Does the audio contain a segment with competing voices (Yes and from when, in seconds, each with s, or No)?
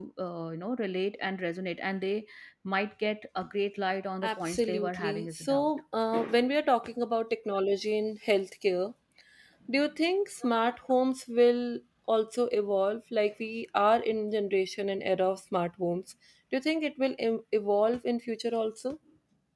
Yes, from 4.2 s